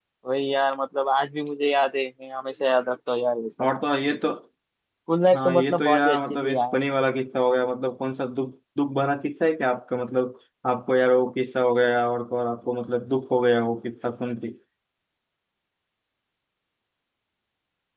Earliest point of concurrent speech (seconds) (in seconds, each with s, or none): 5.3 s